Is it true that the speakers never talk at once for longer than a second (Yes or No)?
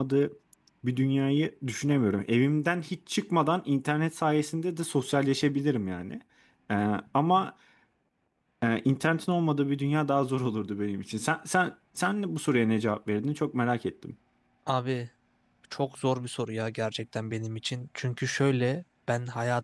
Yes